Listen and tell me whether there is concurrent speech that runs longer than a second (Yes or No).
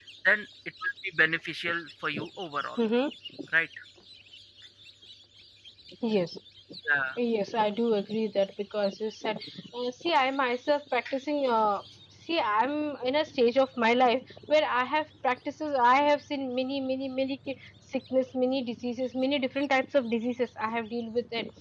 No